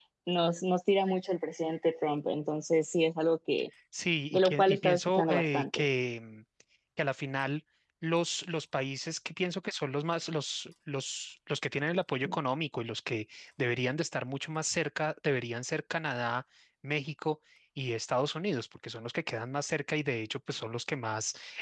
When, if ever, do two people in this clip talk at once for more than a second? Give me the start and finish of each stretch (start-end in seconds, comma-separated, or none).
4.3-5.8